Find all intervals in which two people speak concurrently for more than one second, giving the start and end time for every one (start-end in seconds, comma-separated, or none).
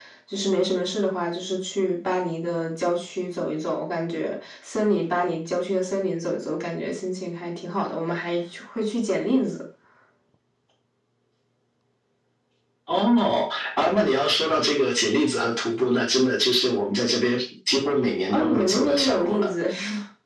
18.3-19.5